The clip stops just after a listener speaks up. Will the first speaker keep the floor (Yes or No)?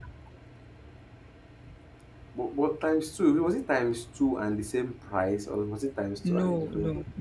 No